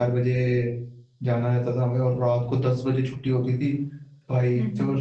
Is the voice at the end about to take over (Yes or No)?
No